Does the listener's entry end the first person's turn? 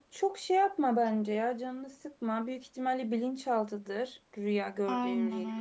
Yes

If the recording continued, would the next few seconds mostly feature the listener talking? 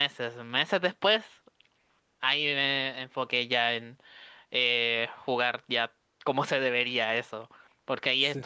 No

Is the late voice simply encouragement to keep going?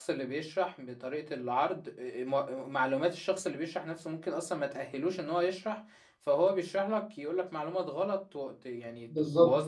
No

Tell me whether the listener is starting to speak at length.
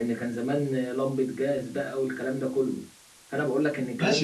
Yes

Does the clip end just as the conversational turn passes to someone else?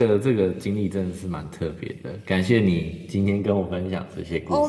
Yes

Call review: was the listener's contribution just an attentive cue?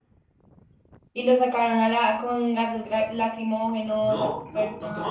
No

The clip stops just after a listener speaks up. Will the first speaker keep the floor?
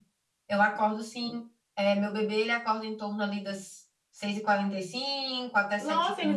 No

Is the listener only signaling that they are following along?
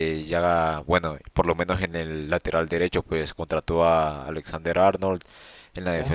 Yes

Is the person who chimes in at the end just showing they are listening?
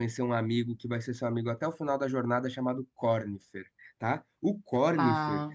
Yes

